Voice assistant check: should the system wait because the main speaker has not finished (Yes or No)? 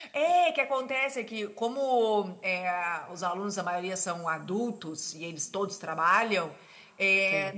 Yes